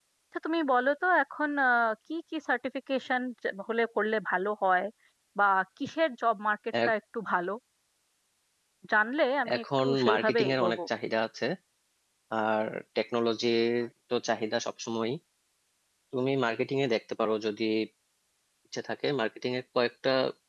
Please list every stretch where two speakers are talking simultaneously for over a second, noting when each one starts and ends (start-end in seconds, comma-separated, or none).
9.6-10.8